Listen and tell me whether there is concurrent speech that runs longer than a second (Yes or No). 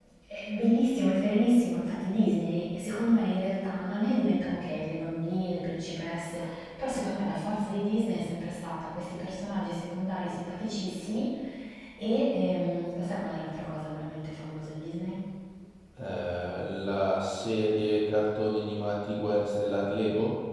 No